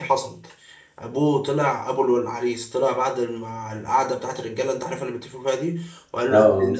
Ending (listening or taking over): listening